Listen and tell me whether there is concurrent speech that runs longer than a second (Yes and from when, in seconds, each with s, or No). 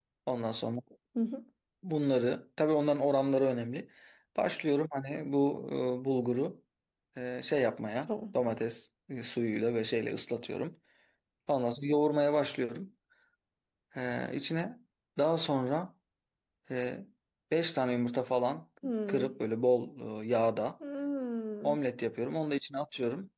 No